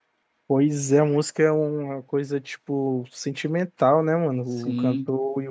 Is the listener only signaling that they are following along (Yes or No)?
No